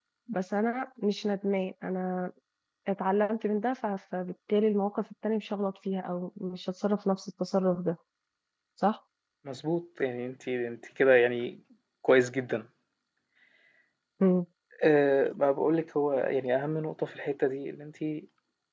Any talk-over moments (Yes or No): No